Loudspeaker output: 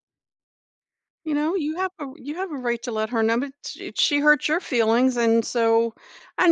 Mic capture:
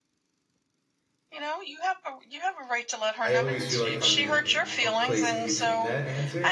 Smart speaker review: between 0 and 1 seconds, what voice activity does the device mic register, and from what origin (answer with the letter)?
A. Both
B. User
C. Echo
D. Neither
D